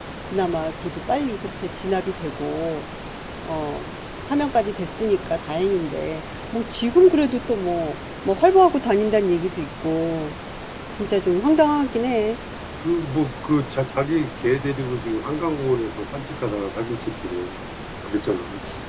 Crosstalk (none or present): none